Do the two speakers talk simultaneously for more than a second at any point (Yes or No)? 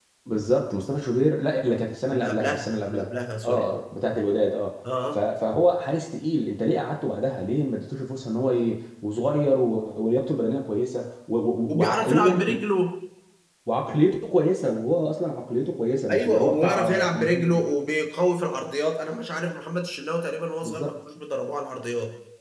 Yes